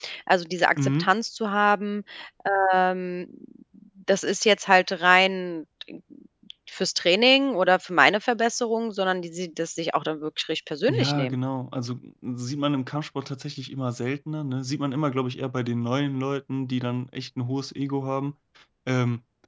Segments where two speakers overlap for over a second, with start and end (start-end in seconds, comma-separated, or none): none